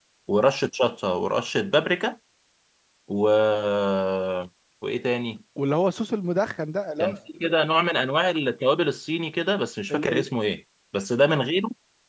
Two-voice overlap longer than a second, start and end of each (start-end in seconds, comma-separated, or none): none